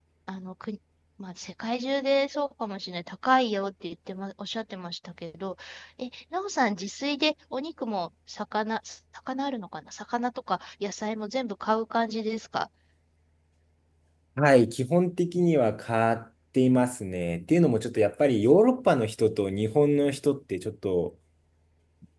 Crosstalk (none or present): none